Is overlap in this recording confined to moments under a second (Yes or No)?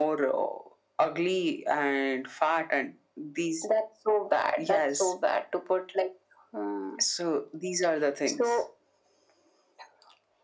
Yes